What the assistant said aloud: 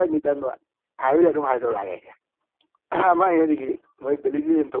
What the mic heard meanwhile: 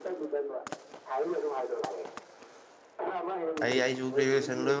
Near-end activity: present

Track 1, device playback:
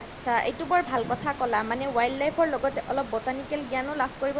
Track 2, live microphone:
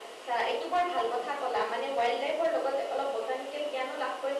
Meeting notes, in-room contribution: none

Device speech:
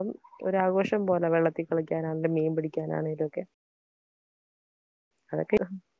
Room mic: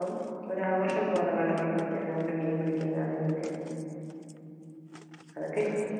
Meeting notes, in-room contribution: none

